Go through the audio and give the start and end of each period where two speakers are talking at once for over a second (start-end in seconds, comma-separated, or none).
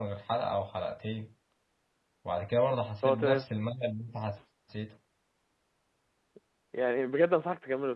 none